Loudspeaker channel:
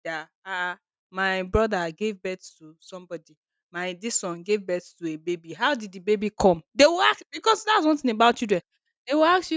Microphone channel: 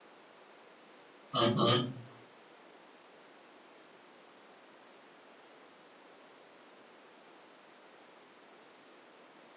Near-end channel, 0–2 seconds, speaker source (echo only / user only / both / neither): user only